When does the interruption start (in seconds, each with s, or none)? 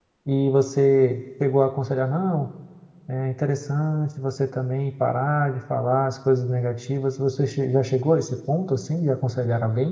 none